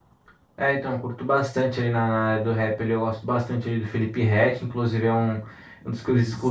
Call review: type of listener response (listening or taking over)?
listening